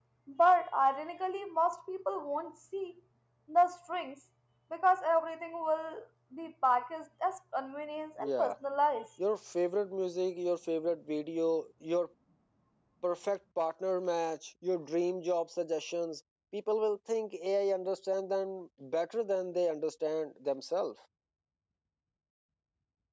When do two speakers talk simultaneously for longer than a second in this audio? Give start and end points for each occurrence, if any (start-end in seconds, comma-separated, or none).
none